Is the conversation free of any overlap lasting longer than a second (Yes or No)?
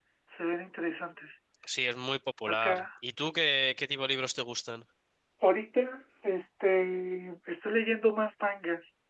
Yes